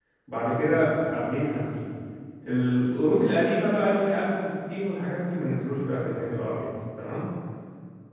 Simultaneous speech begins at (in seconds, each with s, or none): none